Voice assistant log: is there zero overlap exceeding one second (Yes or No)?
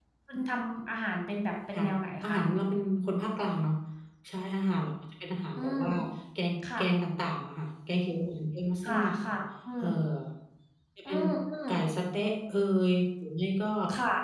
Yes